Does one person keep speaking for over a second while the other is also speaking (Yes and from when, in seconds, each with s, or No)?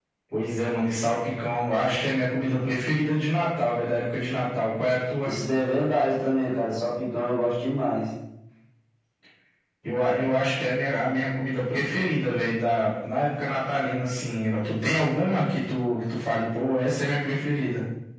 No